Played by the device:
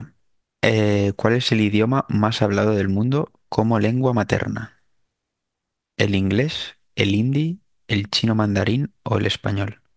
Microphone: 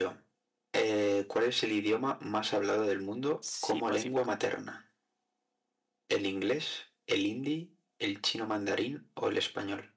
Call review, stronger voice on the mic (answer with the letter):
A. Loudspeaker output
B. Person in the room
A